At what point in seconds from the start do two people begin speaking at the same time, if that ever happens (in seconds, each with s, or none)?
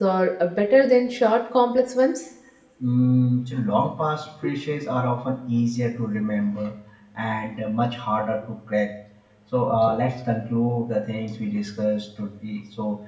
none